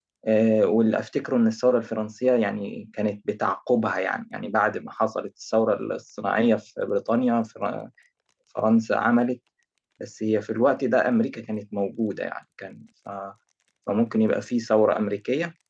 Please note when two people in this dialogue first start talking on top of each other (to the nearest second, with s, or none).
none